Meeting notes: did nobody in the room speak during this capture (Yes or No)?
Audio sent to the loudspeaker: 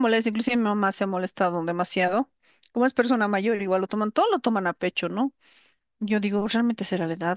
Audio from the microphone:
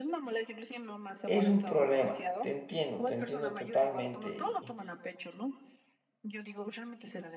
No